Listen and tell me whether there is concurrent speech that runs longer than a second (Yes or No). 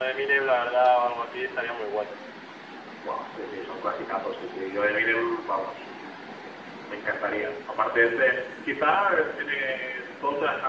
No